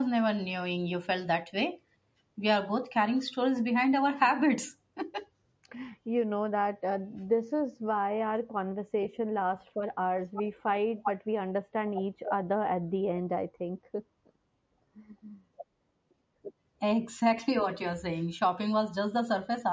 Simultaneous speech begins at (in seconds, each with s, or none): none